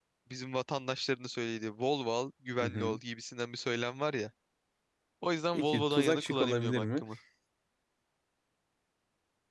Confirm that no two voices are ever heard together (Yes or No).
No